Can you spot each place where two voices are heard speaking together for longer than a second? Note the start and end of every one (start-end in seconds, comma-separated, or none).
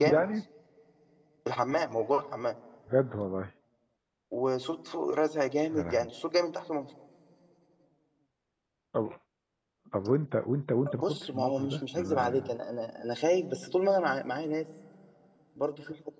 11.0-12.5